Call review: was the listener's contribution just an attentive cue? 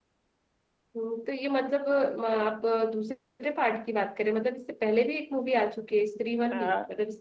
No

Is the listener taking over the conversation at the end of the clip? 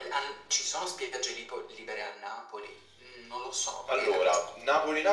Yes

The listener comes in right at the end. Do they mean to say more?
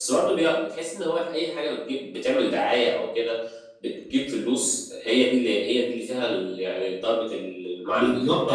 Yes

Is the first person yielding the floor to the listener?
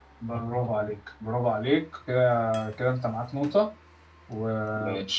No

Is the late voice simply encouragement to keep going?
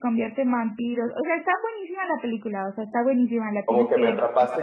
No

